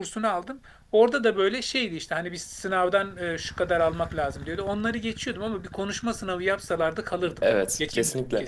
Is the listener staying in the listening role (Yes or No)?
No